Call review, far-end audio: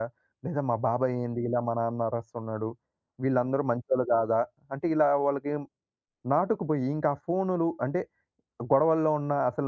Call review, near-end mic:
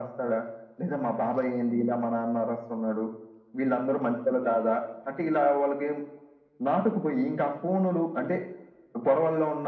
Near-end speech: none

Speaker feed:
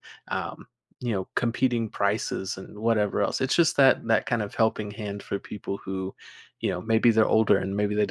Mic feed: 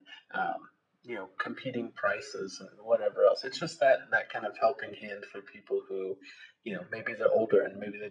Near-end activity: none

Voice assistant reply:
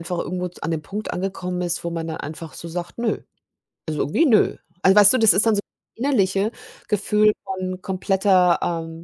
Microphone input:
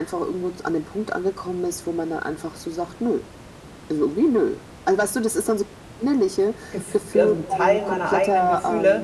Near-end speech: present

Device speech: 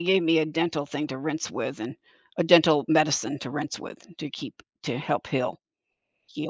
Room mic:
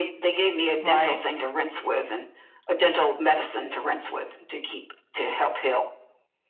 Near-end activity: present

